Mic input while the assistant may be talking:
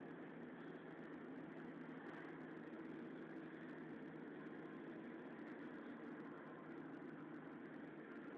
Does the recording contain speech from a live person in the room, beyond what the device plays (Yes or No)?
No